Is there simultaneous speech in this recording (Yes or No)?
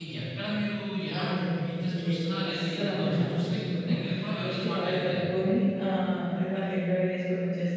Yes